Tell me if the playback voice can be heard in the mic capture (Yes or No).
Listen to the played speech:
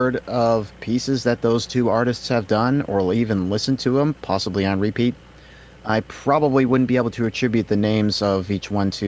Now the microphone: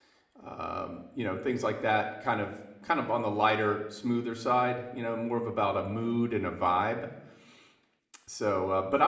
No